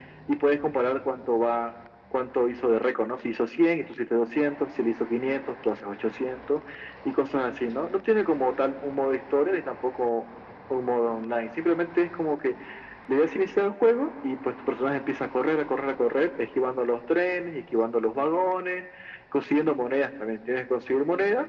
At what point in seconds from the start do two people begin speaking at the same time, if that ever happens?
none

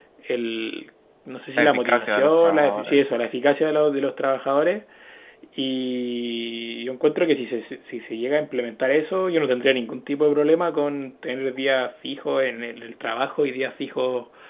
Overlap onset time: 2 s

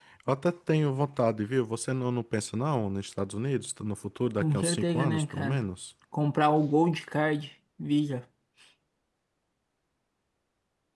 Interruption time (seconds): 4 s

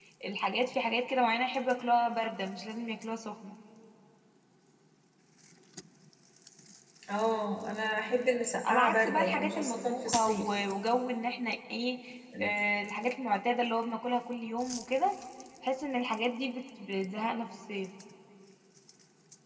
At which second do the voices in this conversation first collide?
9 s

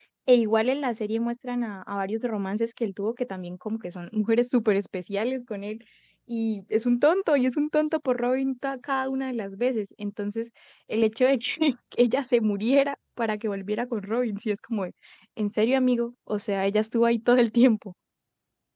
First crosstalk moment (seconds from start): none

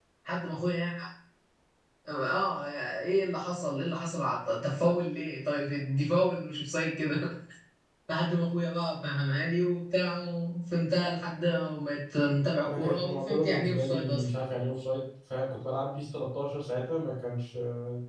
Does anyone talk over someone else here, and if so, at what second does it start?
13 s

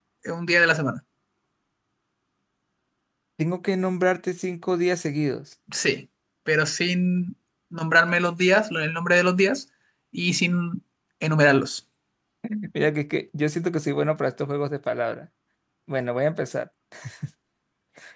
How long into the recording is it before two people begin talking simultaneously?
none

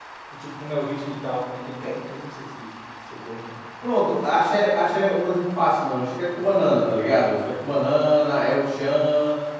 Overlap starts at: none

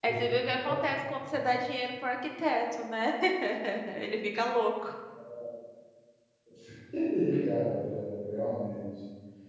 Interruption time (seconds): none

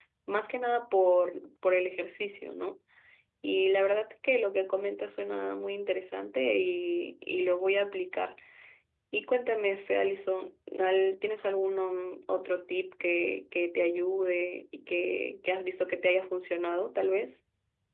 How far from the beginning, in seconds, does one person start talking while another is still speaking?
none

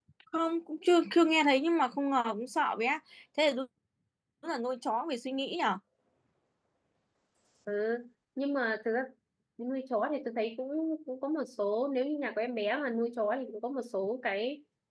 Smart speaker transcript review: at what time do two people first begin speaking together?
none

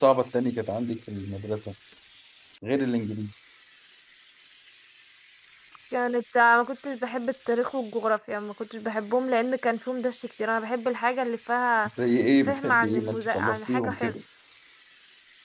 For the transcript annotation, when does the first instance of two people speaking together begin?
12 s

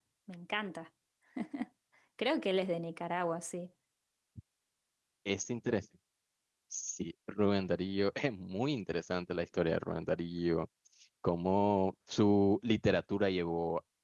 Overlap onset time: none

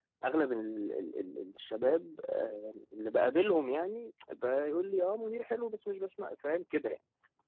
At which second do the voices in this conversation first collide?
none

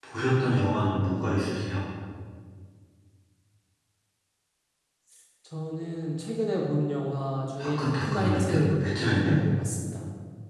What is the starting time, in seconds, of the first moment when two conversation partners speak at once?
8 s

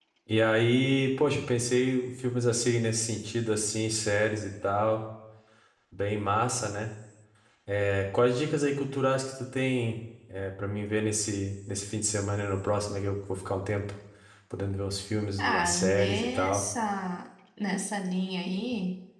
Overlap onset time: 15 s

